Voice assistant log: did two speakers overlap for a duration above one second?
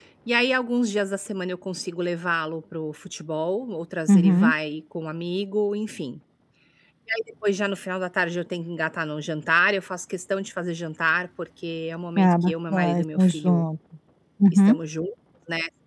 Yes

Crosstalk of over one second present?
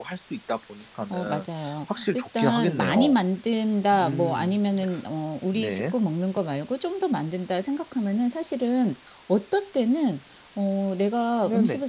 Yes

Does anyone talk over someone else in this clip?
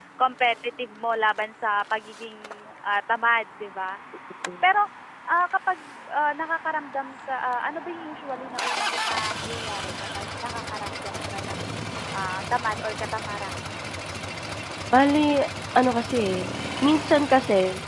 No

